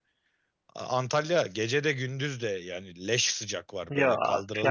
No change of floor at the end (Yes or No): No